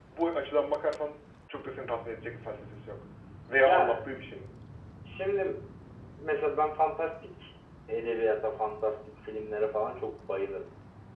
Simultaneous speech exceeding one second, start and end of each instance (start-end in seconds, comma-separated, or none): none